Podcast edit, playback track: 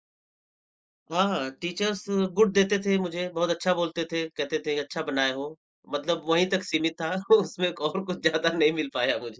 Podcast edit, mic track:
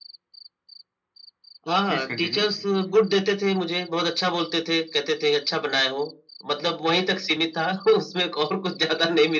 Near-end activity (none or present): present